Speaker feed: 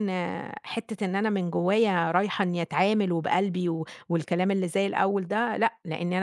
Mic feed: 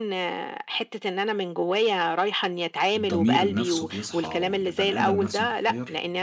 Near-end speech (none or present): present